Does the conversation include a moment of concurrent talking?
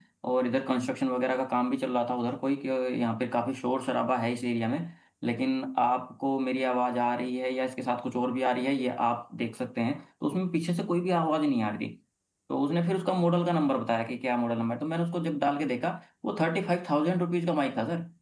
No

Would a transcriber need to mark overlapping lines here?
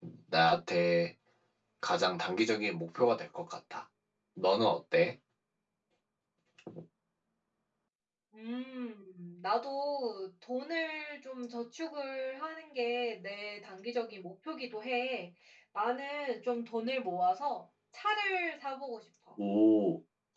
No

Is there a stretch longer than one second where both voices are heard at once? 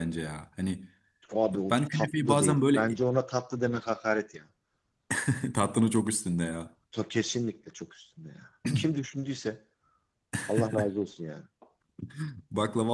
Yes, from 1.7 s

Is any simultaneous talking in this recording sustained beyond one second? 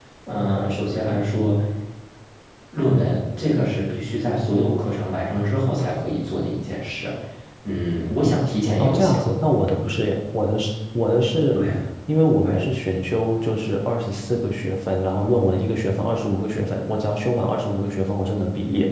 No

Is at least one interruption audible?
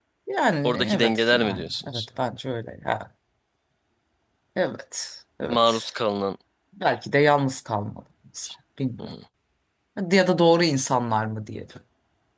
Yes, from 0.6 s

